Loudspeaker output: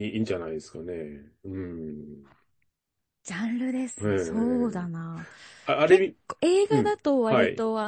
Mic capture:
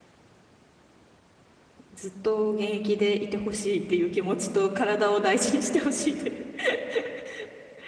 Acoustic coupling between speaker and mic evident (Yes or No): No